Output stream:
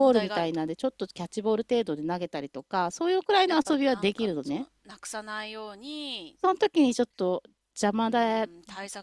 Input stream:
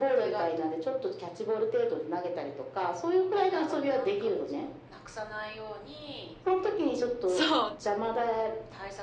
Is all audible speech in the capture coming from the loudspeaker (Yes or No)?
No